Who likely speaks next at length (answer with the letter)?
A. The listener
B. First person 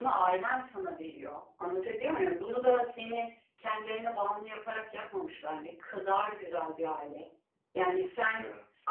B